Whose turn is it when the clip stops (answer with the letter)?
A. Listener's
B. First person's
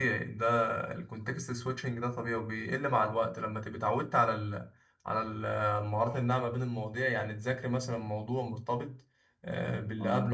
B